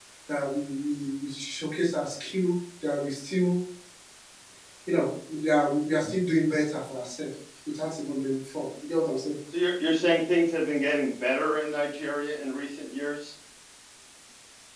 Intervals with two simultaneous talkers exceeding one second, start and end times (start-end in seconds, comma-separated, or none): none